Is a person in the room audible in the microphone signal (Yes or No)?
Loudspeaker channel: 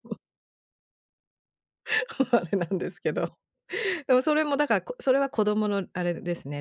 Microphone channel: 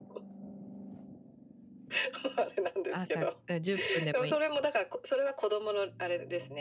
Yes